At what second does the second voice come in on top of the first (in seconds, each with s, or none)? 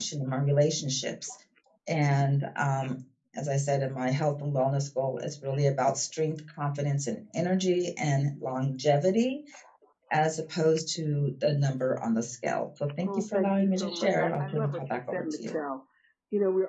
13.0 s